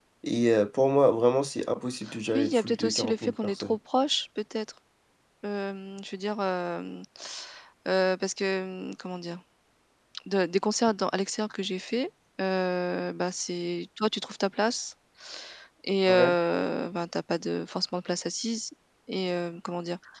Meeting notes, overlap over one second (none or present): present